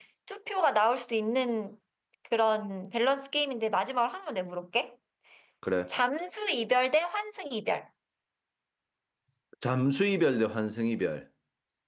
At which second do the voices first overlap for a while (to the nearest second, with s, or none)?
none